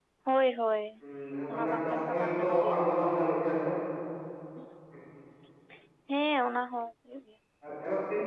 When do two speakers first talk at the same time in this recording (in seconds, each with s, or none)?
1.5 s